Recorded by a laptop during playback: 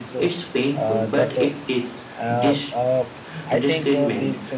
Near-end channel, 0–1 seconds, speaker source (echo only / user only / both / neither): both